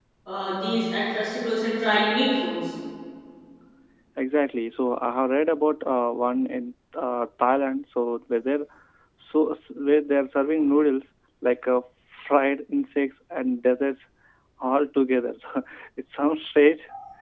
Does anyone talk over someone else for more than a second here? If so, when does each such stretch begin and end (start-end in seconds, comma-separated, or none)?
none